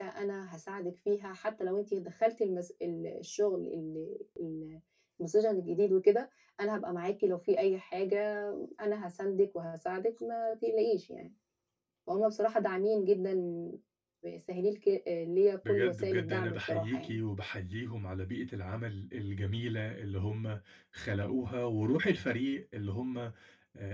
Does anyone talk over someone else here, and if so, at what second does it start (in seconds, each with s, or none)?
15.6 s